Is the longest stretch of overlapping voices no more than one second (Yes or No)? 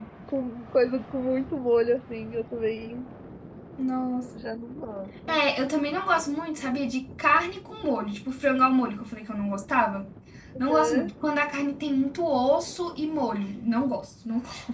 Yes